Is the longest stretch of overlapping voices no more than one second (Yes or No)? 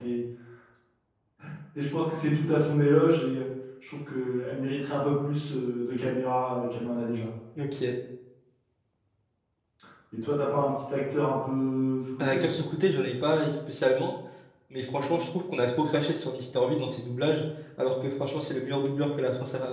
Yes